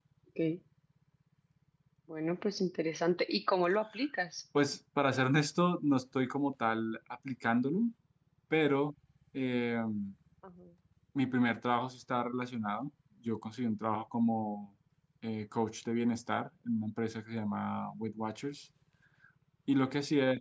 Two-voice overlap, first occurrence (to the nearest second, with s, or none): none